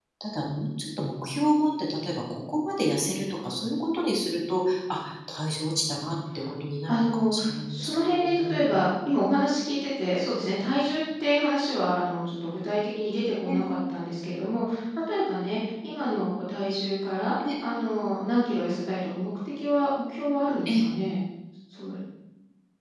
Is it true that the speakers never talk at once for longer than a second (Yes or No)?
No